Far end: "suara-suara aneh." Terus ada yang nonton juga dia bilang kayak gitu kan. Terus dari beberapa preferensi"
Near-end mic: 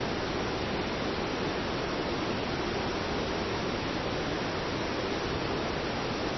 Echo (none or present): none